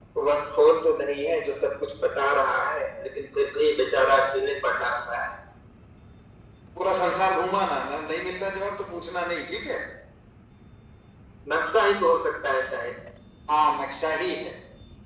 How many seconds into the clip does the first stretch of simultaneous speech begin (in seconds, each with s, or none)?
none